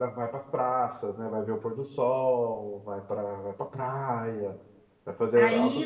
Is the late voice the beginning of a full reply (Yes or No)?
Yes